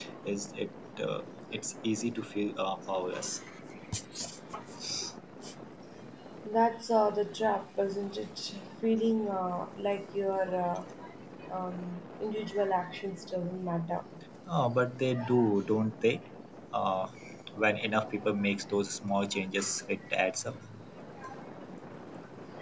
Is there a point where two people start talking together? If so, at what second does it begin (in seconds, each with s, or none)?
none